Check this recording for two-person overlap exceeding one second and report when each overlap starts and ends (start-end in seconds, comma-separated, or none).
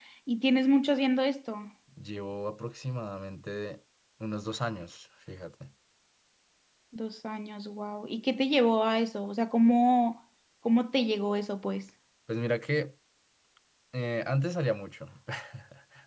none